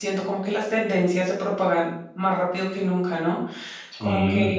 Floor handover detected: No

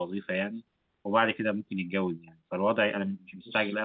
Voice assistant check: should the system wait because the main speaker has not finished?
Yes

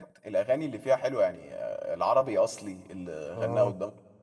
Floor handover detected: No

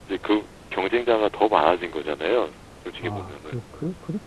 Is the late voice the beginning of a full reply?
Yes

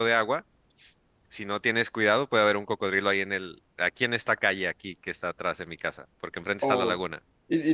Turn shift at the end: Yes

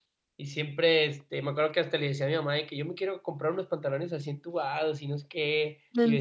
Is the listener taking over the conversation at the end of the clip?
No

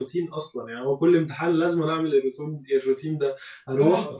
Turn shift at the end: No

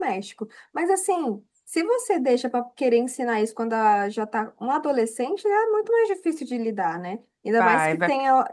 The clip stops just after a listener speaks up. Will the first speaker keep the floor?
Yes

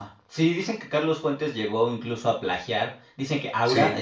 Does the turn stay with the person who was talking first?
Yes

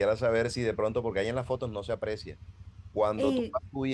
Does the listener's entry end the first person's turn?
No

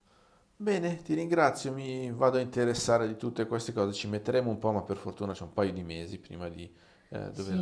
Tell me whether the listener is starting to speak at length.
Yes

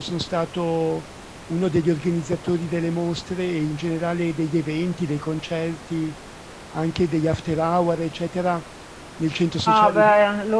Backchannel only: No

